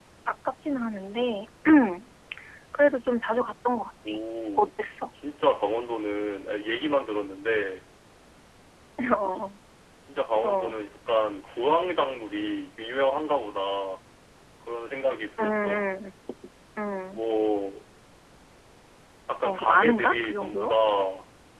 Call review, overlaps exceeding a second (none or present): present